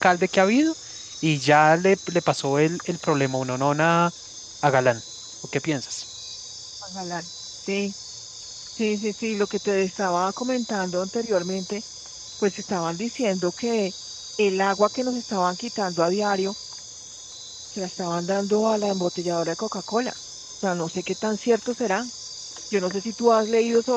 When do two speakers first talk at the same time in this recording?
none

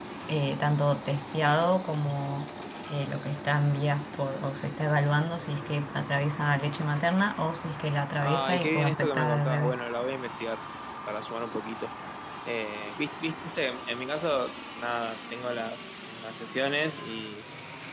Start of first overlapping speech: 8.2 s

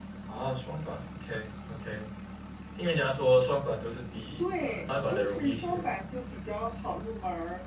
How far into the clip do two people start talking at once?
4.4 s

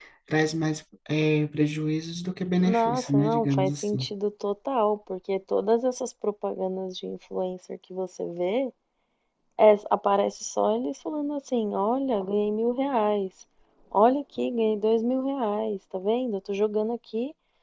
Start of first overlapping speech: 2.6 s

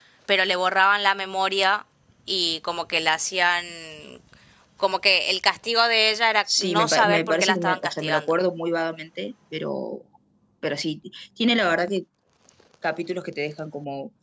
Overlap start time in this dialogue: 6.5 s

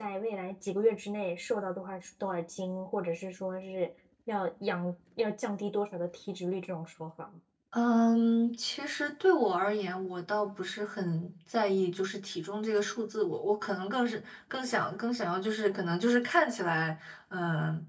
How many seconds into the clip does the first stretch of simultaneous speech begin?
none

